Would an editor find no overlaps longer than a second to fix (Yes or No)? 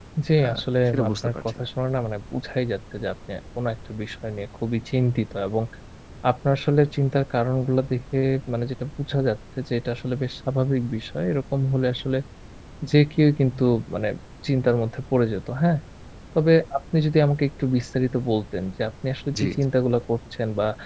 No